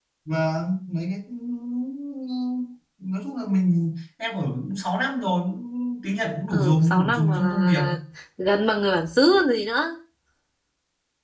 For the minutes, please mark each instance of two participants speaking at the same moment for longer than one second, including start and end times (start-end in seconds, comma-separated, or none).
6.5-7.8